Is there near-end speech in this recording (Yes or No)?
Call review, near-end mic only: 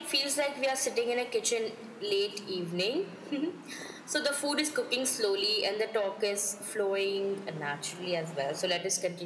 No